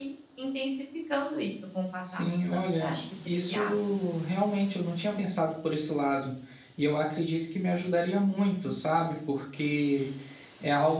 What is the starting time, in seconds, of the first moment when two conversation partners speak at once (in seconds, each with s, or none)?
2.0 s